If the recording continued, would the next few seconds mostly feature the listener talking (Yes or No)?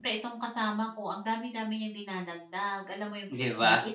No